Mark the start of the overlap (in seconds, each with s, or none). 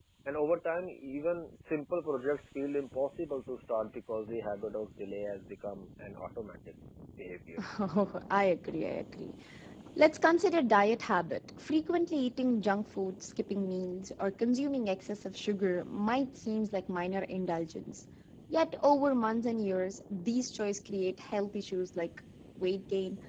none